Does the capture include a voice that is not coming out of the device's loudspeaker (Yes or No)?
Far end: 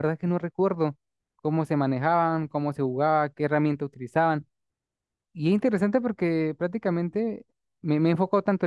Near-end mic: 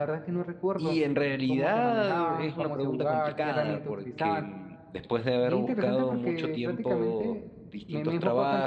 Yes